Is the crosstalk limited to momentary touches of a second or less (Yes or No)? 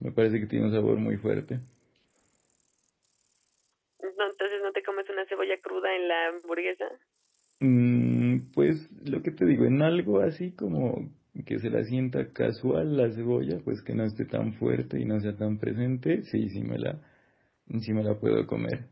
Yes